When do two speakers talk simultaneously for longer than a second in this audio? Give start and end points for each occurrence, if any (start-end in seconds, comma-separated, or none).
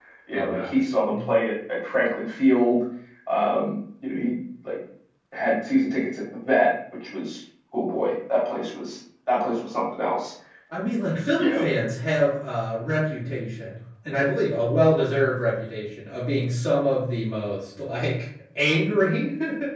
none